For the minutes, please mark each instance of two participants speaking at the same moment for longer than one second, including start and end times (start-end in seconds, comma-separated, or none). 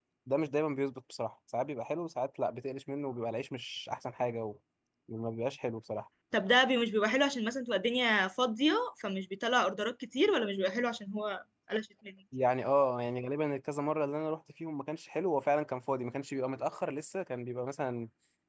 none